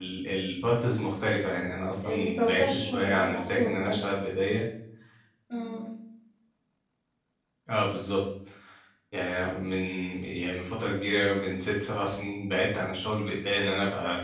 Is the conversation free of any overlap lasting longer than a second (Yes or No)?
No